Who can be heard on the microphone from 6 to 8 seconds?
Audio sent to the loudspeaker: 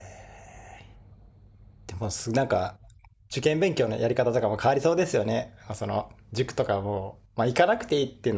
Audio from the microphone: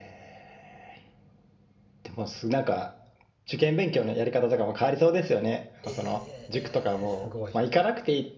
both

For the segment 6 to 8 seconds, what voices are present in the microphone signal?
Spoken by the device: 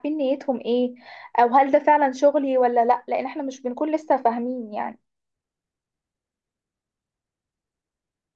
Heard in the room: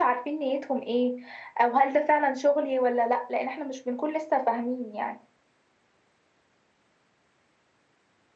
neither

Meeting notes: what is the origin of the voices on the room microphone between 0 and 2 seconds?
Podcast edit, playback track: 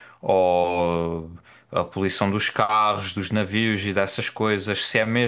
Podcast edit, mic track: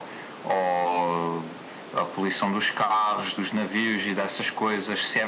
echo only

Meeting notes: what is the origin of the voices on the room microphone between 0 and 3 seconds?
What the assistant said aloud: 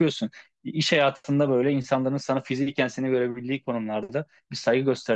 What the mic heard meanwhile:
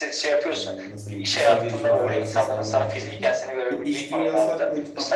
both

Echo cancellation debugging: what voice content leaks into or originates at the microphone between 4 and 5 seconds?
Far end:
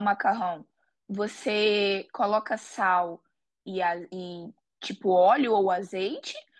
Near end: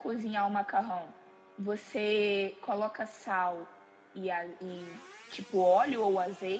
echo only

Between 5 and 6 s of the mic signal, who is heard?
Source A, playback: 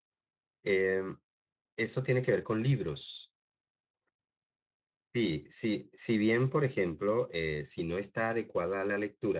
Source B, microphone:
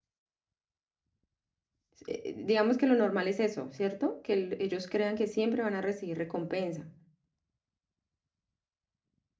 user only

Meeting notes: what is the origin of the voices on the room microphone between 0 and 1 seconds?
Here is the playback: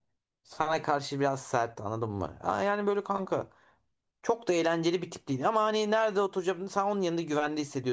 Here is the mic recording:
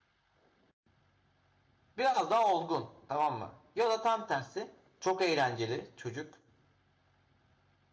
neither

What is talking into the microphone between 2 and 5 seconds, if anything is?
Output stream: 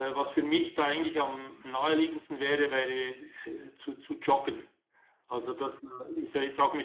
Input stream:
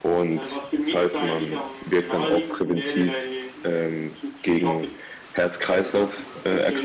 both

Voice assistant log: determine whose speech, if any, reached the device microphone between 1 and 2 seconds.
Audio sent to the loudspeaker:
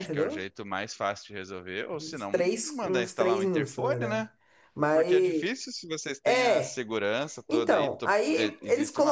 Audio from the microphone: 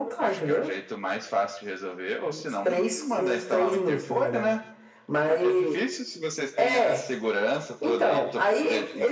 echo only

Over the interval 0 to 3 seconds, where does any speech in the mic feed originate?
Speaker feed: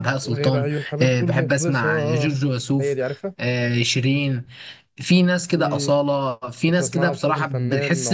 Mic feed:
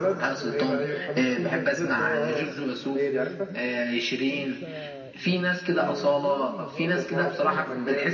both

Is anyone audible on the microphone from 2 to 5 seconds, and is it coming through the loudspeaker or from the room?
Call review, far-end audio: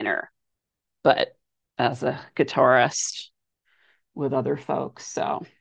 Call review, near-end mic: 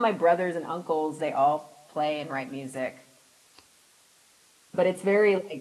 user only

